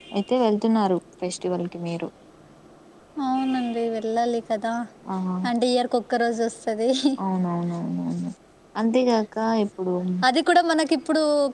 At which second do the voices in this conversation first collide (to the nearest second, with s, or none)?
none